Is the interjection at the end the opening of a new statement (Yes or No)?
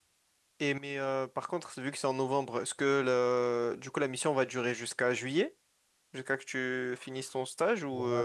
Yes